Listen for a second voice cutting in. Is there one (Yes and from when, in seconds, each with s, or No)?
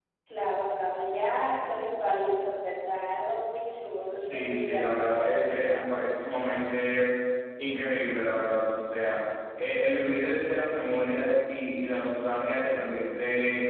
Yes, from 4.2 s